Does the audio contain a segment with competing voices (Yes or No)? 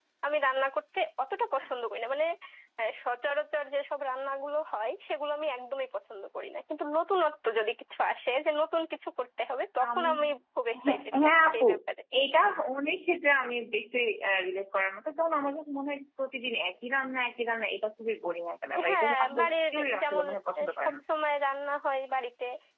Yes